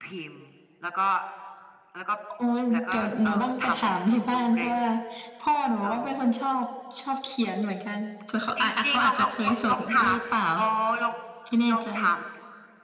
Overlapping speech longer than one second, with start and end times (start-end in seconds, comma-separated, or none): 2.7-4.8, 8.6-10.2